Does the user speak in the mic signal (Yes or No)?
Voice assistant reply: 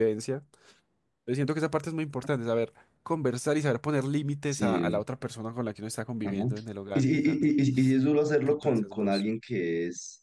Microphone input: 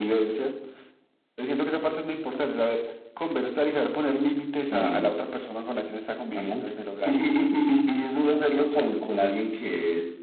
No